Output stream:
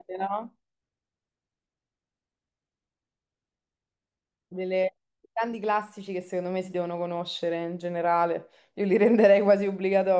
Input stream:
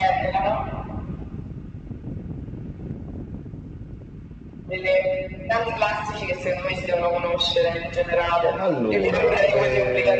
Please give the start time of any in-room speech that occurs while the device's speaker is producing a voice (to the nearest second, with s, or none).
9 s